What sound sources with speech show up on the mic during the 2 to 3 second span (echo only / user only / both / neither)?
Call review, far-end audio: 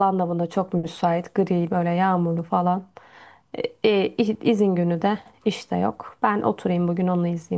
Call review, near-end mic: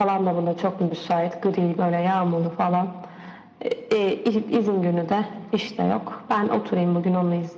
echo only